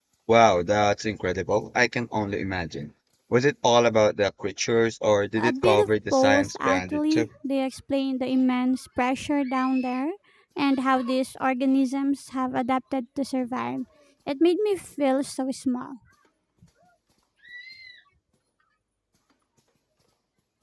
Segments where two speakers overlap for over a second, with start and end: 5.4-7.3

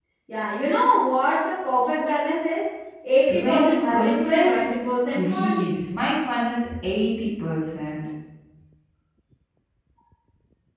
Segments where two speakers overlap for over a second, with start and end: 3.3-4.6

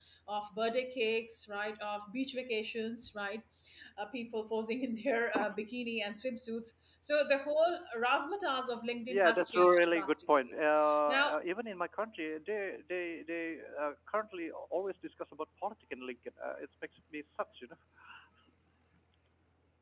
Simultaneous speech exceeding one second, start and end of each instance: 9.1-10.5

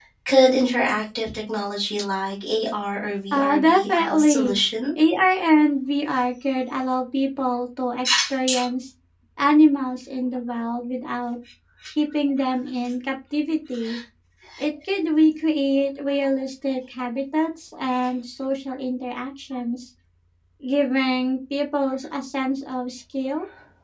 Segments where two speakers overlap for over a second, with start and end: 3.3-4.6

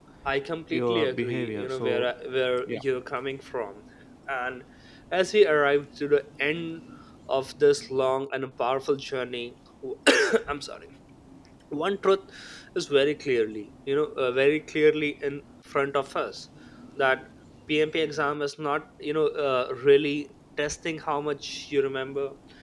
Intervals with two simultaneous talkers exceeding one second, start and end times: 0.7-2.1

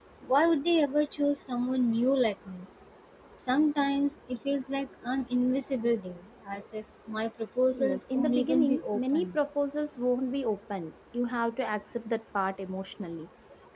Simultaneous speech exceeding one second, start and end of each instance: 7.7-9.4

